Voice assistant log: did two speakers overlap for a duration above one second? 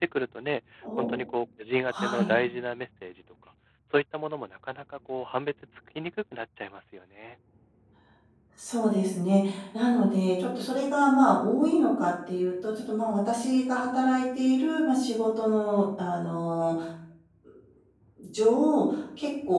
No

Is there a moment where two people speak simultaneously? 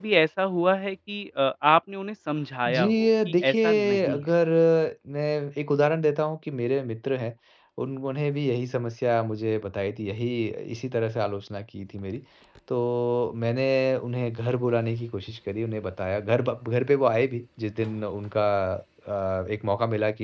Yes, from 2.6 s

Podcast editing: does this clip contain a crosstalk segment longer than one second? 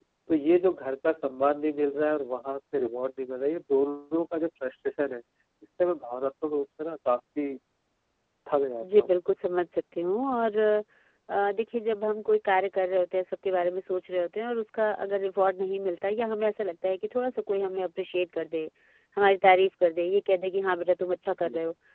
No

